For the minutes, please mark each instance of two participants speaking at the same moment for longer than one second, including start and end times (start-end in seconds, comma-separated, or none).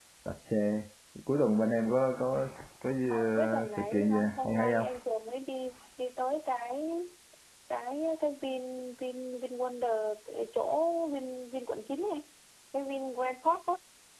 3.1-4.9